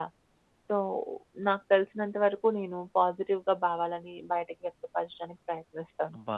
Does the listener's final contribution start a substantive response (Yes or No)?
Yes